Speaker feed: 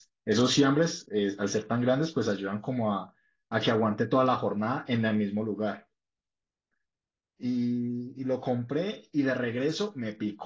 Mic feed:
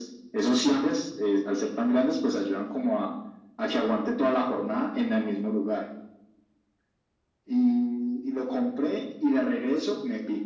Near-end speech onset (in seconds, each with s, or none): none